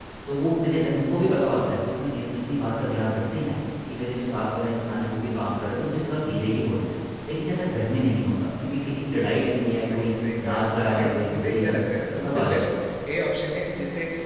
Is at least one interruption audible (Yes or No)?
Yes